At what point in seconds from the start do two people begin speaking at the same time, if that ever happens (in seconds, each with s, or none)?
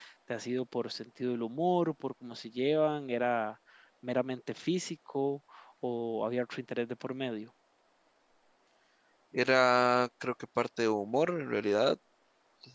none